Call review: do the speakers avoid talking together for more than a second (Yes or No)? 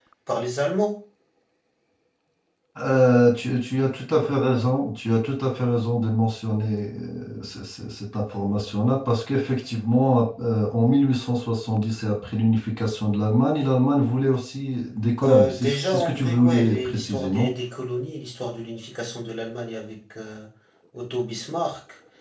No